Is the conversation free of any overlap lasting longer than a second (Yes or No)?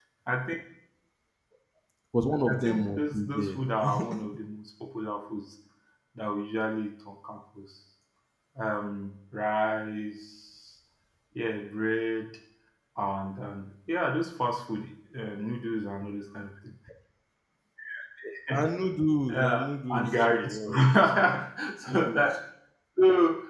No